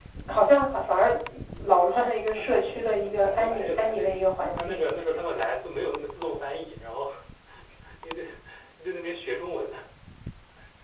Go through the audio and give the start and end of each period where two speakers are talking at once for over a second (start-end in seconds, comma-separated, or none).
1.6-4.1